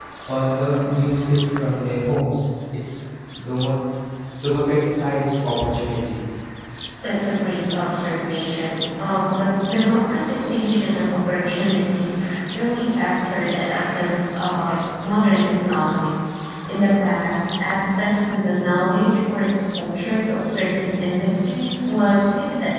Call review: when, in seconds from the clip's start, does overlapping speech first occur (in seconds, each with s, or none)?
none